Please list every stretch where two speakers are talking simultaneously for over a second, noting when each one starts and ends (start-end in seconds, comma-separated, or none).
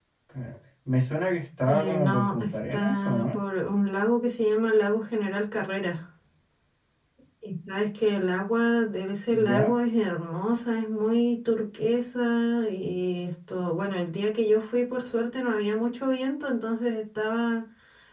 1.6-3.4